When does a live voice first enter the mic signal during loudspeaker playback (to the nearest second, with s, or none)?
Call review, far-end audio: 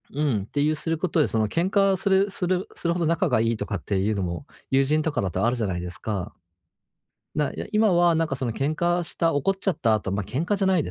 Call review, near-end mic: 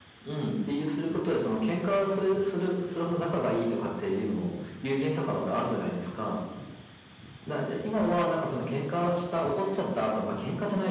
none